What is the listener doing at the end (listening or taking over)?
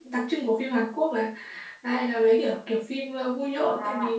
taking over